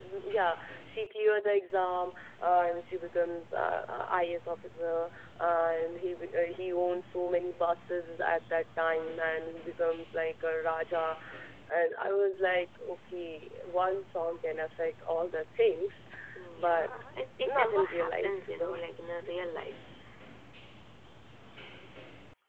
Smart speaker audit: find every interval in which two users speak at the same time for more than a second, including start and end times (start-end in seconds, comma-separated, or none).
17.4-18.8